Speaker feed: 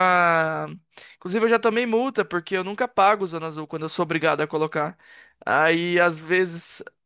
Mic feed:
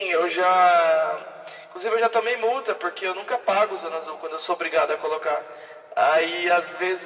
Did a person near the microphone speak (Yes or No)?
No